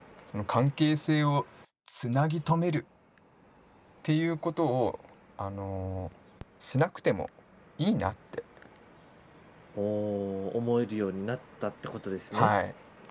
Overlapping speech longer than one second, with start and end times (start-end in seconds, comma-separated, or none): none